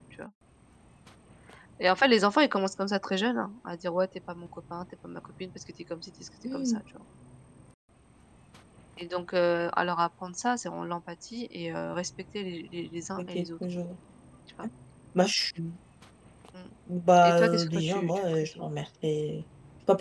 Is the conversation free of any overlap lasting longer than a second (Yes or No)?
No